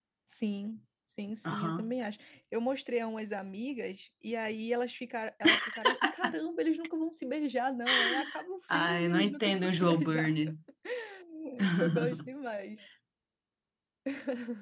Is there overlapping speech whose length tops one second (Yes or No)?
Yes